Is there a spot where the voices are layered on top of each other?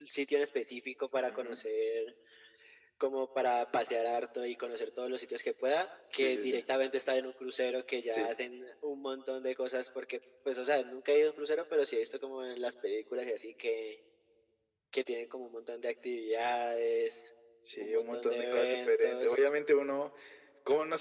Yes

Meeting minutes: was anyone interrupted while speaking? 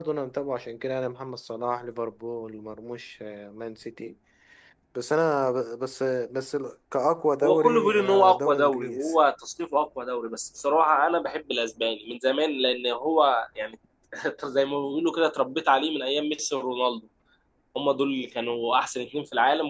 Yes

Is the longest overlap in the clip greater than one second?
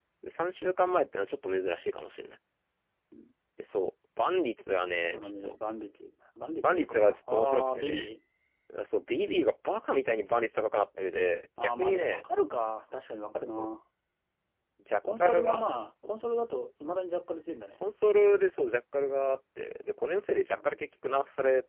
Yes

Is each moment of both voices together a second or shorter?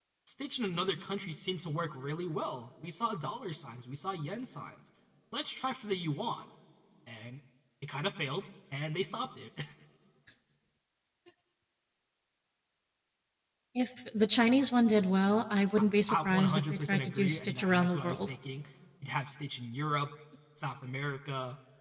No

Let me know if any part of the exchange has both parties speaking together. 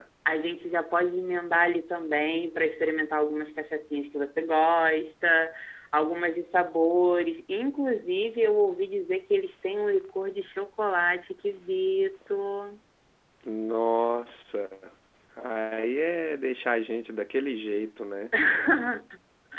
No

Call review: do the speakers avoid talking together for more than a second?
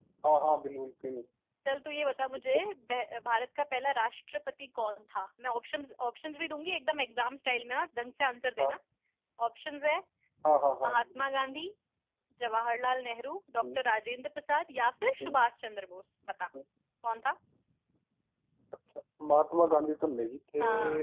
Yes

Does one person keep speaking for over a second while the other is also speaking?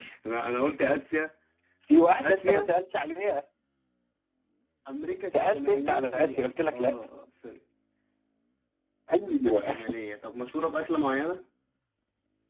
Yes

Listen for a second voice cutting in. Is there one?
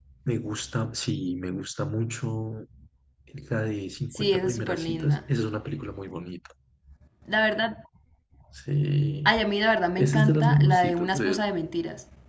Yes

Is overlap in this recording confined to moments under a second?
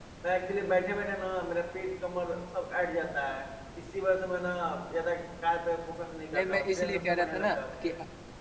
No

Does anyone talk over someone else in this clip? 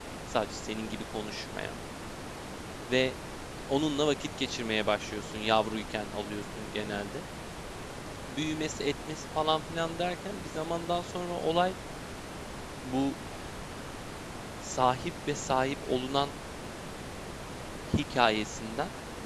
No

